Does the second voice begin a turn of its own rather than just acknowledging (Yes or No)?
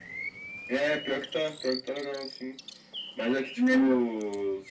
No